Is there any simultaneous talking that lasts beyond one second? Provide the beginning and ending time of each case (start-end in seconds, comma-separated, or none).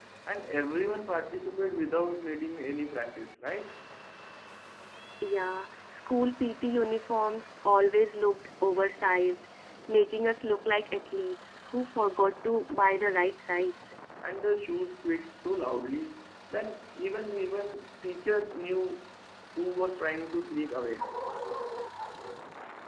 none